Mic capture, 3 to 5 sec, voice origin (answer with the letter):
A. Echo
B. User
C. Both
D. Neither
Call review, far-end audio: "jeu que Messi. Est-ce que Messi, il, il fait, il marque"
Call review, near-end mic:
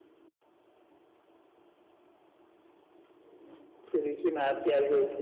B